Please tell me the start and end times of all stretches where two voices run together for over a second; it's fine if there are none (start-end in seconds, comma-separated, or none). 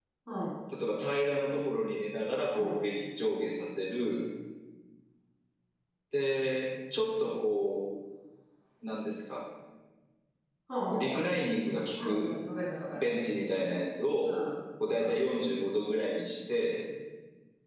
none